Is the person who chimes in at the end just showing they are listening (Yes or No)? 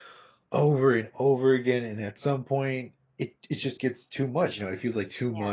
Yes